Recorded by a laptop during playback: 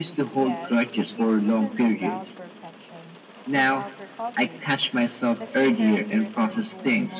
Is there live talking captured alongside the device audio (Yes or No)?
Yes